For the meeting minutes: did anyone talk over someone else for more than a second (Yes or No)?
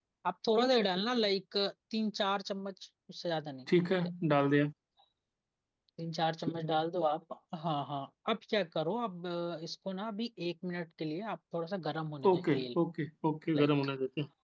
No